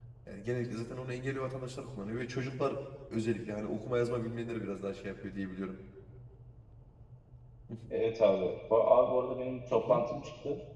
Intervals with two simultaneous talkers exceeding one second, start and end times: none

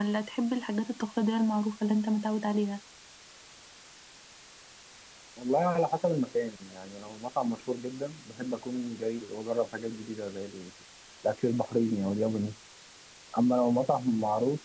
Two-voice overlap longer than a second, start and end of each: none

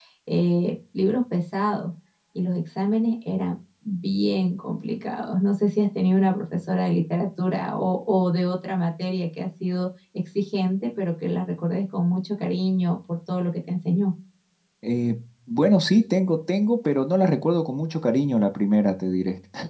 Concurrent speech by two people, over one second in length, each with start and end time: none

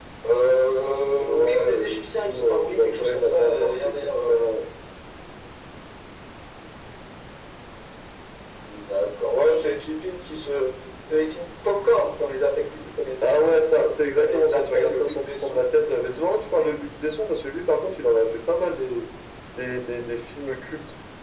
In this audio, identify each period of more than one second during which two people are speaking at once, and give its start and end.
1.2-4.4, 14.2-16.2

